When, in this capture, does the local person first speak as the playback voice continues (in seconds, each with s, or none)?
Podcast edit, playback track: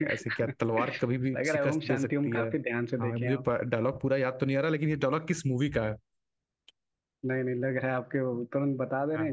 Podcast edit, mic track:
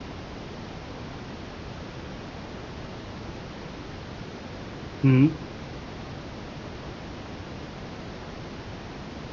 5.0 s